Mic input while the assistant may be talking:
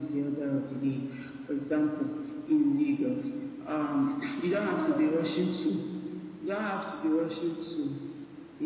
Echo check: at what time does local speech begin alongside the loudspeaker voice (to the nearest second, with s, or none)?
none